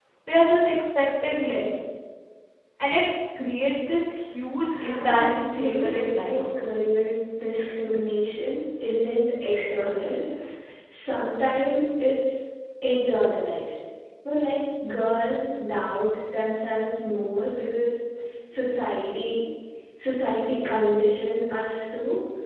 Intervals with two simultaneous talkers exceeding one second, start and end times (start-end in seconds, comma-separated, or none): 4.8-6.4